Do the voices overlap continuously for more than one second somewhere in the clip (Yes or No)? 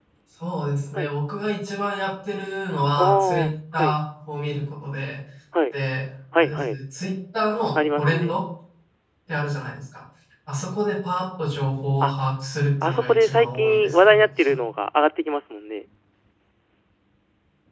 Yes